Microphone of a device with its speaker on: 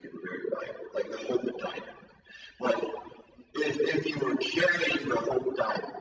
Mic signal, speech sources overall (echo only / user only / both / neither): echo only